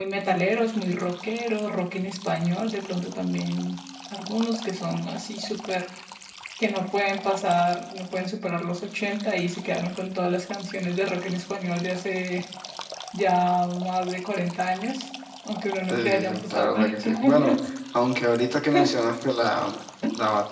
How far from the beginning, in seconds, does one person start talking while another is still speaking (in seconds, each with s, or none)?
15.9 s